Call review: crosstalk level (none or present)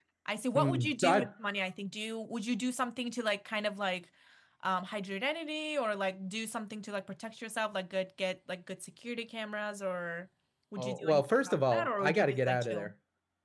present